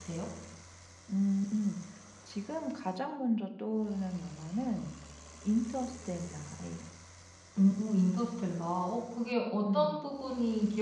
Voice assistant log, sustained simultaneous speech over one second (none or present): none